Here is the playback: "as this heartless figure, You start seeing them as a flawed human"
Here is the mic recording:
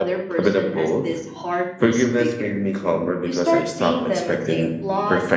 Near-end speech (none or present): present